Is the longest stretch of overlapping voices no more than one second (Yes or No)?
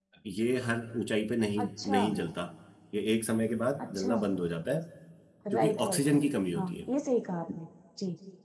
No